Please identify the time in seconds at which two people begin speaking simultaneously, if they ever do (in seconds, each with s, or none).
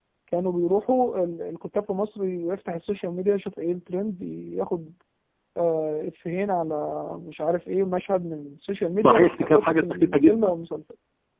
9.0 s